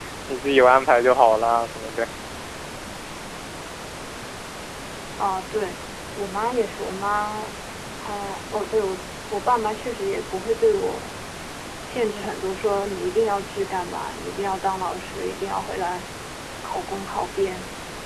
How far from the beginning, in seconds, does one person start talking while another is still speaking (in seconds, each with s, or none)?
none